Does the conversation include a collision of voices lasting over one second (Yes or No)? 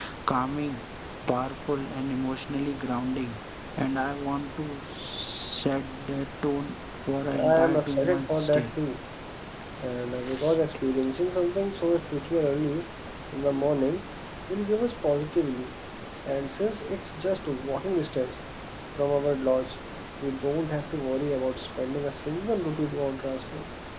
Yes